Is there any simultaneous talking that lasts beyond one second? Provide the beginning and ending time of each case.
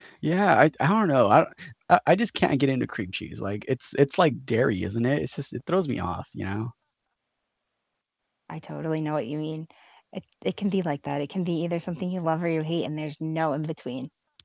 none

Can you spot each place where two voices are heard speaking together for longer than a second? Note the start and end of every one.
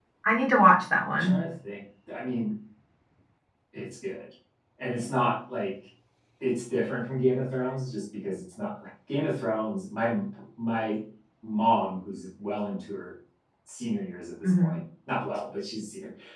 none

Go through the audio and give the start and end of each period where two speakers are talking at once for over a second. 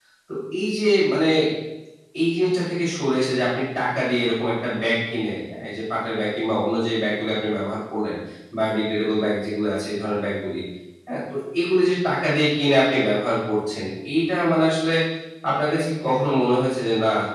none

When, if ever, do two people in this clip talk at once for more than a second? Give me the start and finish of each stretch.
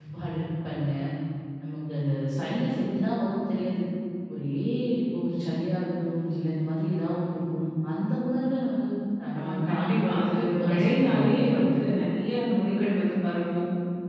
9.4-11.6

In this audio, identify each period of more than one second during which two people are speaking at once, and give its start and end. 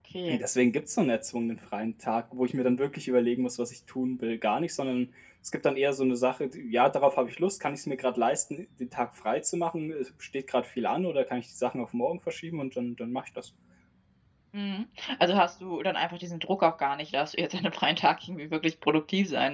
none

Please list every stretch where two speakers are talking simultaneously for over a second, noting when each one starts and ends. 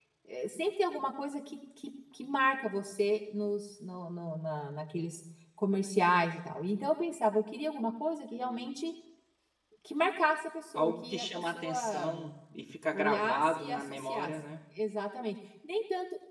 10.7-12.3, 12.9-14.3

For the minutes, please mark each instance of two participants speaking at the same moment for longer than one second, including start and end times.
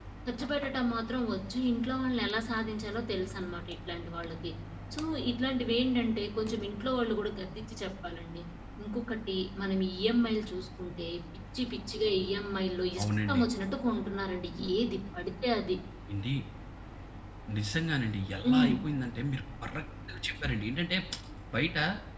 none

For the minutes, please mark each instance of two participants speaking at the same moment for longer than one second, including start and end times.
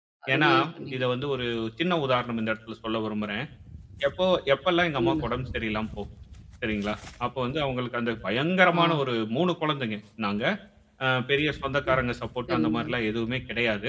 none

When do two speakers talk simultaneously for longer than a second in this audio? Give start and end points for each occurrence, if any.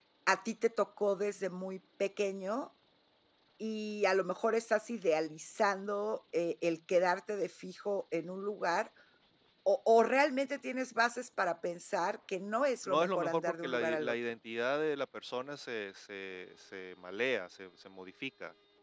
12.9-14.1

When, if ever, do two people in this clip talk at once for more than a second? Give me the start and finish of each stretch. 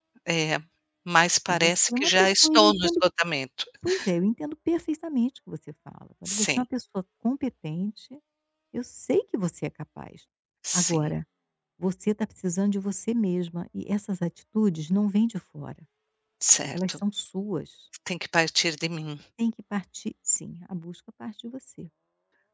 1.5-3.0

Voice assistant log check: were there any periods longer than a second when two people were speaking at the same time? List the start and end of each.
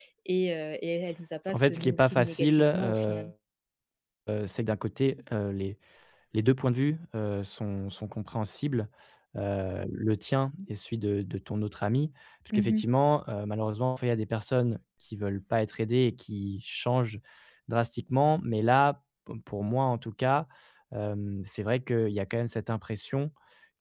1.5-3.2

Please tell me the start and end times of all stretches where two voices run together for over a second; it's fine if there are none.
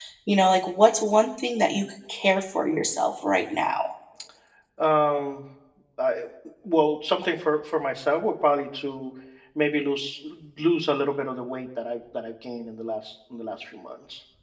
none

